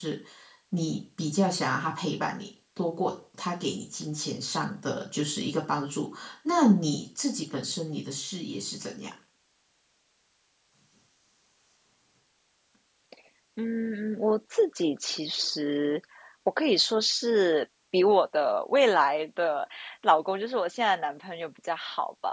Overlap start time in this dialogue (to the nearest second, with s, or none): none